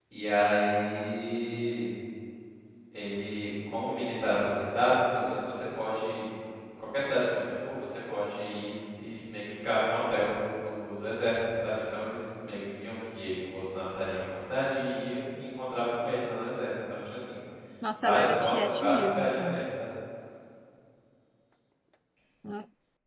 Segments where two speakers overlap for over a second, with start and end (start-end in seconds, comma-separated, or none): 17.9-19.6